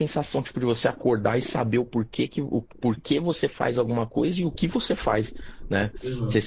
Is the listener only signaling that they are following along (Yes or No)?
Yes